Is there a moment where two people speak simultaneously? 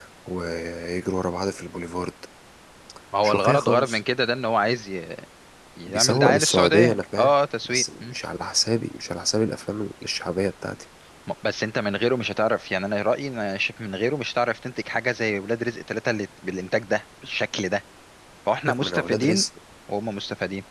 Yes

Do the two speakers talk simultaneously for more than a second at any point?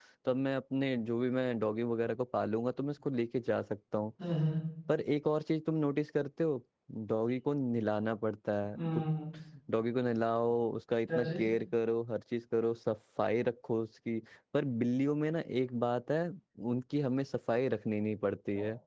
No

